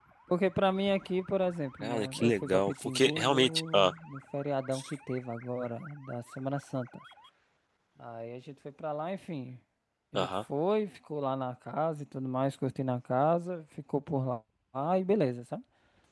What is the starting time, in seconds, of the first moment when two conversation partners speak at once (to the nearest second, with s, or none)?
2 s